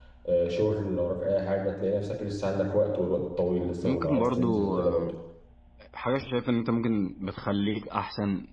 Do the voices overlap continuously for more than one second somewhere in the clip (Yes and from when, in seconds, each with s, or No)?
Yes, from 3.8 s